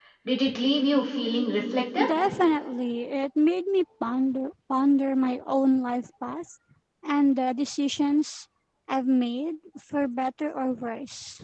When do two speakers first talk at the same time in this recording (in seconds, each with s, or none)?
none